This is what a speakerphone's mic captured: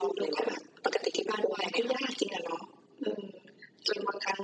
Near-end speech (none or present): none